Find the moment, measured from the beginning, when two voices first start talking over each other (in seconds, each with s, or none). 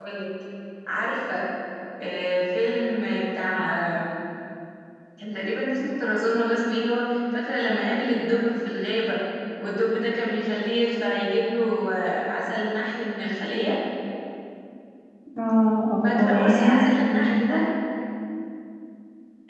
16.0 s